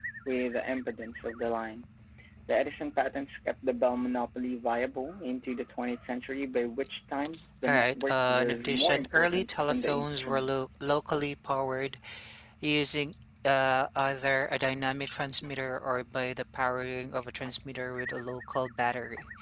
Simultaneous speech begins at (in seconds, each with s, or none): 7.6 s